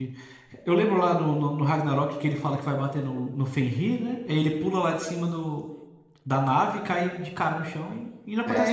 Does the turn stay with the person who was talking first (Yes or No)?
No